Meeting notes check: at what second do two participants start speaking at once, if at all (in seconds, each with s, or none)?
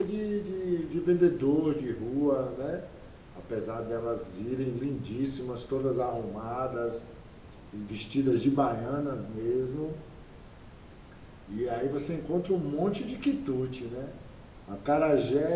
none